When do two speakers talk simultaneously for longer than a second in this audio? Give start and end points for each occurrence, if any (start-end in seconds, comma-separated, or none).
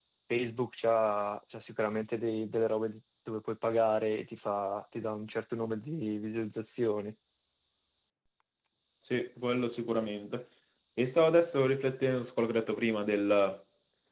none